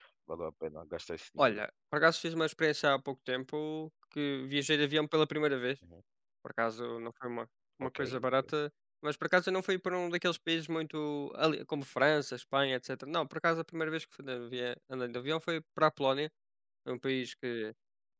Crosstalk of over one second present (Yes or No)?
No